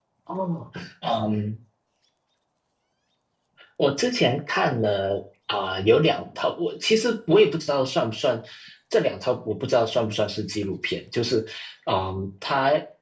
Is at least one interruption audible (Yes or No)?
No